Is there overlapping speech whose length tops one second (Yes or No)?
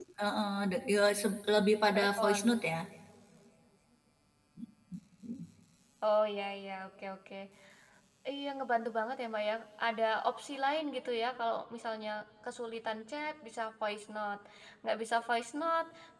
No